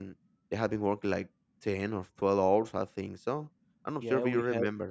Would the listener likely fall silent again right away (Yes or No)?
No